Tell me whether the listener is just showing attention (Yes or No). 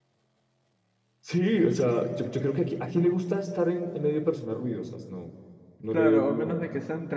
No